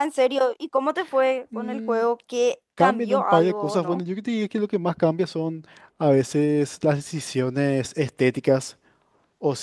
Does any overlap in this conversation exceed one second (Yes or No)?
Yes